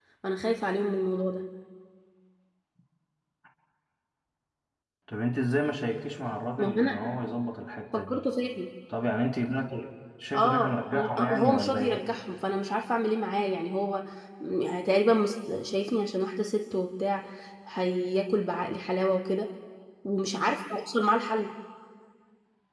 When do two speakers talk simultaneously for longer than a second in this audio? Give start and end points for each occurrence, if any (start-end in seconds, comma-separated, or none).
10.3-12.0